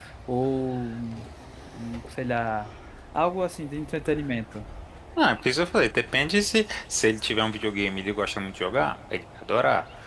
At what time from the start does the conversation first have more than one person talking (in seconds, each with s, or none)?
none